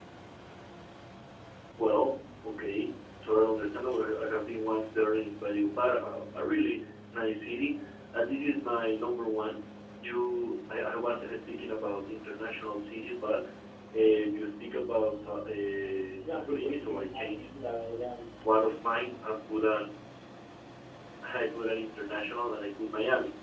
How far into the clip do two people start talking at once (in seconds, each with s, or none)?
16.2 s